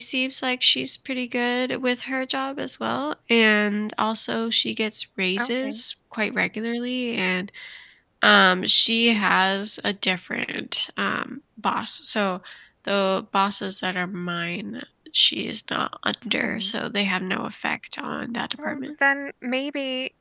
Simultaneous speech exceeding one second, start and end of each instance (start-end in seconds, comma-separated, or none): none